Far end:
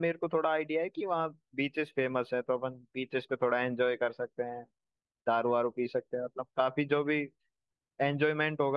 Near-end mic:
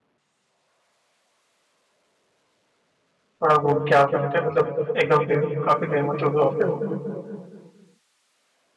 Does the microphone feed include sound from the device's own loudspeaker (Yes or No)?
No